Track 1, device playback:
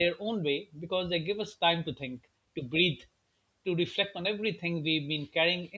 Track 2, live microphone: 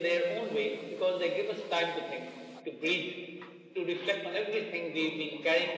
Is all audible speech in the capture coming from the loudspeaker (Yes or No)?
Yes